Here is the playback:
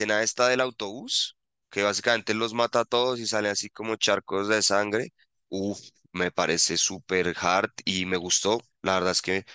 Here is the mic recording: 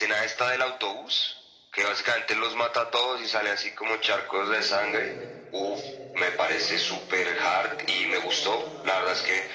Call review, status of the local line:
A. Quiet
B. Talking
B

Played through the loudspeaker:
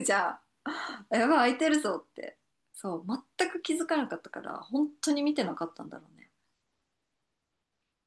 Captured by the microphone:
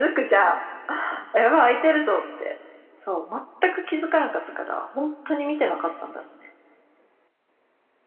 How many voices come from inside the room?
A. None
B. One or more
A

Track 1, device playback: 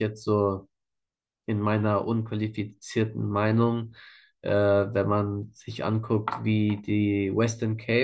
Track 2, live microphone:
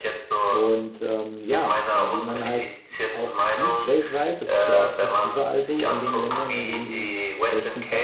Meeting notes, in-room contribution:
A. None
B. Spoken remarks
B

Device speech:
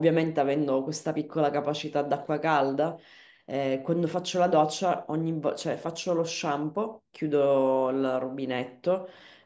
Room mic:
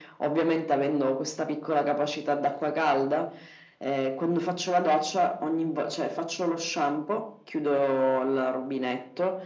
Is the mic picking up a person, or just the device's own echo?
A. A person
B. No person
B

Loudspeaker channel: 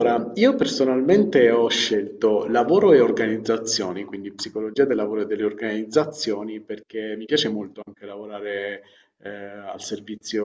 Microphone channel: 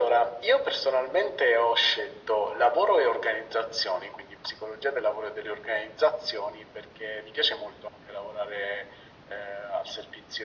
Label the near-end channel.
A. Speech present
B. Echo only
B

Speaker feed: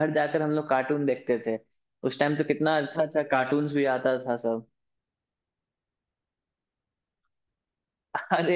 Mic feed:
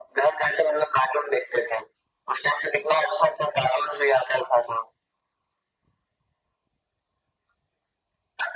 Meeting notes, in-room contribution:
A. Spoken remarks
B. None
B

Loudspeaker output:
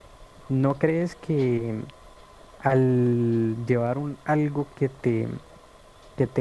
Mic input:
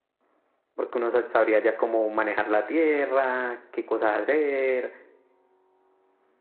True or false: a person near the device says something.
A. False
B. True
B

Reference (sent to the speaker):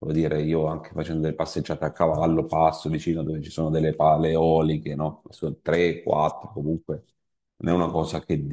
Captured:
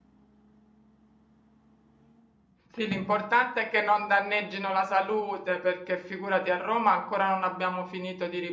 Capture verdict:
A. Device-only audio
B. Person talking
B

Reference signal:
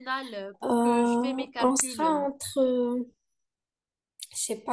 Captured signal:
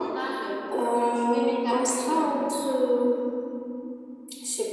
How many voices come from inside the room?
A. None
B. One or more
A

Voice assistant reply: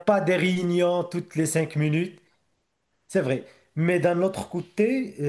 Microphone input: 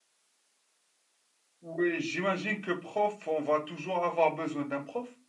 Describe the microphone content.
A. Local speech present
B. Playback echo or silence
A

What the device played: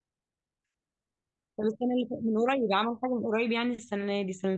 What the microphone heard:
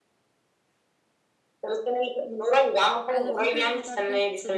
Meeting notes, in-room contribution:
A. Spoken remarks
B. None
A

